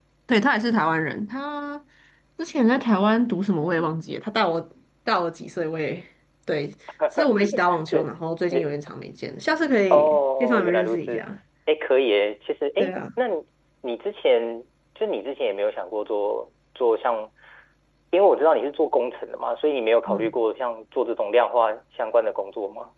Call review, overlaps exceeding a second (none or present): present